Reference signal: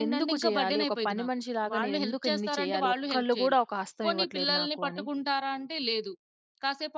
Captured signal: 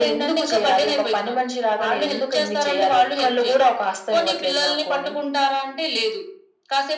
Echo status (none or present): present